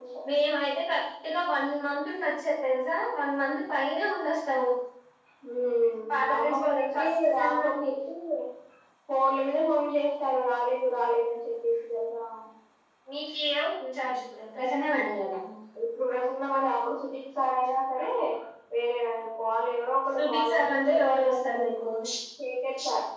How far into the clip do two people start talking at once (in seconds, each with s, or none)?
6.2 s